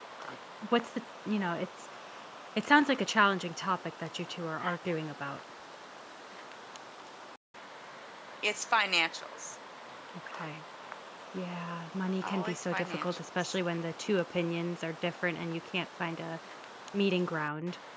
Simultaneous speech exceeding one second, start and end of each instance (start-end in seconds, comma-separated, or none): 12.2-13.6